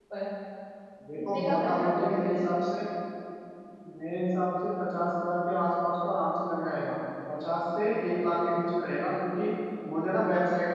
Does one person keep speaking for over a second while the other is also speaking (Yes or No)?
Yes